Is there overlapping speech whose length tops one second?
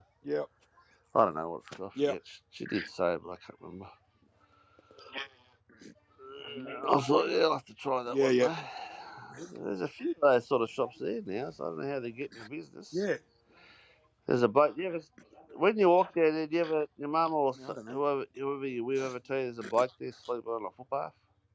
No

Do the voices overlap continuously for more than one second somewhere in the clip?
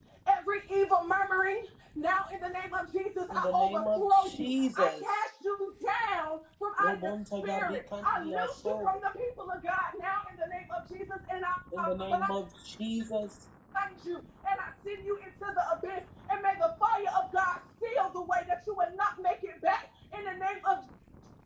Yes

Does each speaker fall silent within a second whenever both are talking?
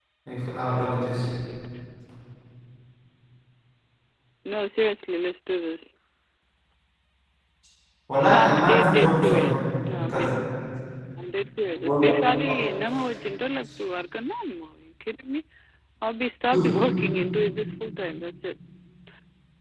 No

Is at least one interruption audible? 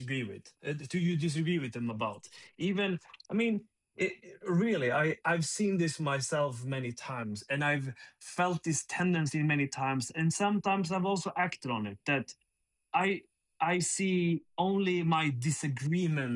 No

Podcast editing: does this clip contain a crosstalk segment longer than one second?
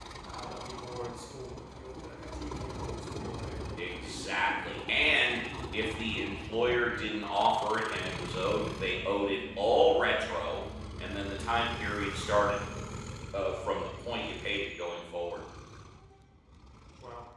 No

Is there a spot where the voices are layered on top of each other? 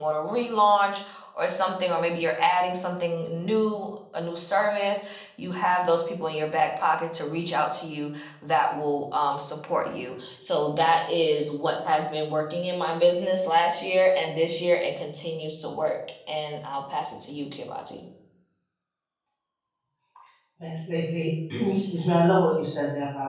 No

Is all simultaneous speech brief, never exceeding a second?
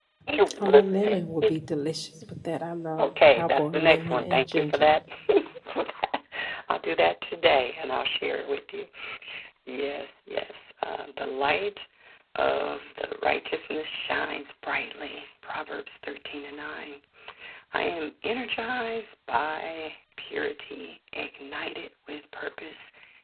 No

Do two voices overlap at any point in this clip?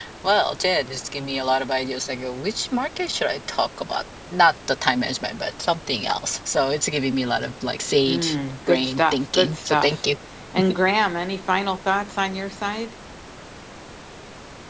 Yes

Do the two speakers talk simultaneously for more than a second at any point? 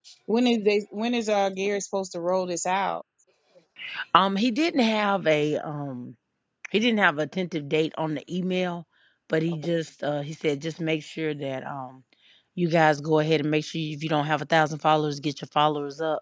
No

